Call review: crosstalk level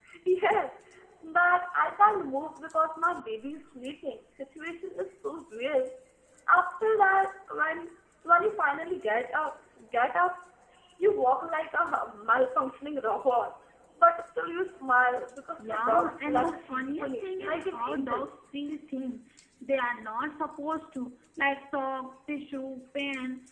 present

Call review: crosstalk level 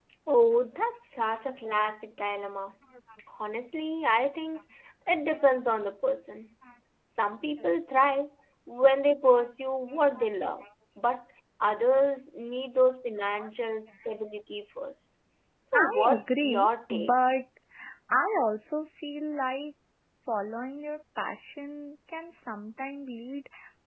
present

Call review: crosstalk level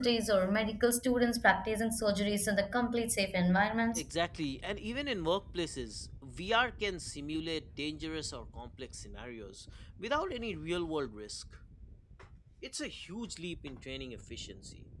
none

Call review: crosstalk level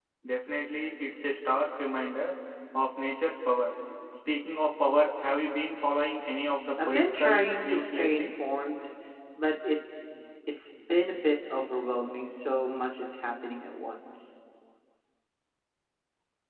present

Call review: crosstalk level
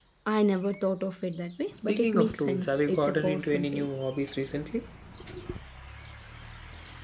present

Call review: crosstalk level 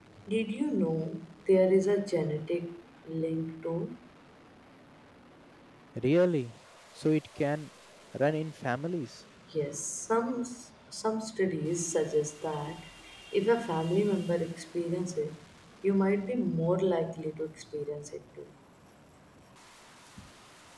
none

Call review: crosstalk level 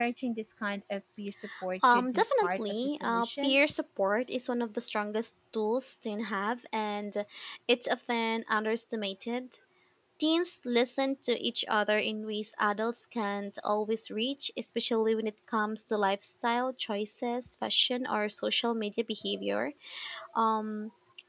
present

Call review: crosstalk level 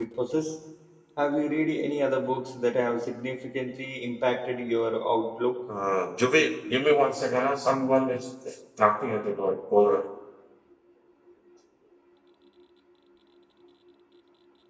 none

